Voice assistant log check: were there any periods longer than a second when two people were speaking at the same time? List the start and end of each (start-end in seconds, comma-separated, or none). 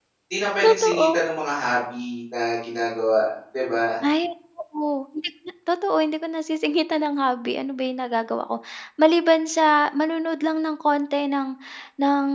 none